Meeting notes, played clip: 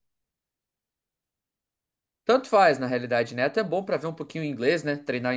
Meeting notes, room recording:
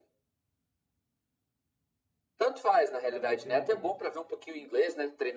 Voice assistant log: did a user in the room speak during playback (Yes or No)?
Yes